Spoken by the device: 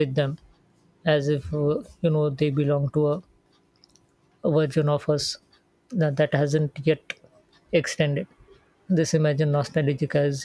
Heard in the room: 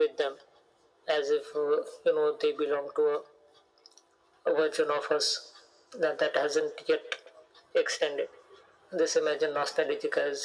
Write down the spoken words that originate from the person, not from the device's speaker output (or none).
none